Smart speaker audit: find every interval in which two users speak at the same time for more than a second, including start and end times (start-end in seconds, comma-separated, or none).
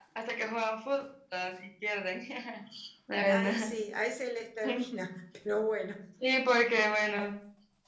none